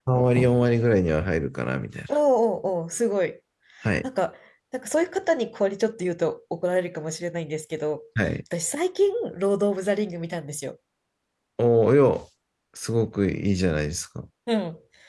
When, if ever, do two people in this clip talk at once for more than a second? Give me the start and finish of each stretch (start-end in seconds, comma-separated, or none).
none